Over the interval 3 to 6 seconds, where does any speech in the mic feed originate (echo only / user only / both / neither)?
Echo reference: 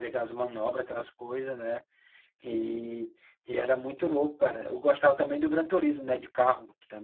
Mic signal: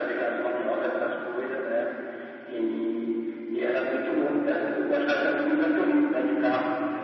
echo only